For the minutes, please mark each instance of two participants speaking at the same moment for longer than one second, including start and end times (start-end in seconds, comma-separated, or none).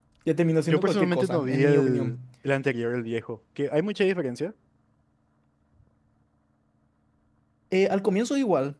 0.7-2.1